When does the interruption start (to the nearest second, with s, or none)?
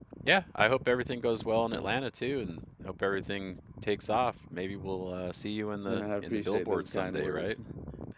6 s